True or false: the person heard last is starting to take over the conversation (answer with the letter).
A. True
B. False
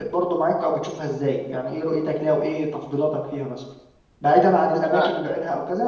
B